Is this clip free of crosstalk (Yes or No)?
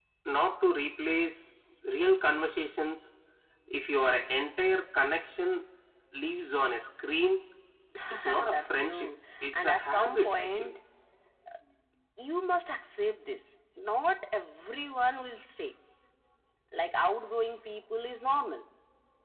No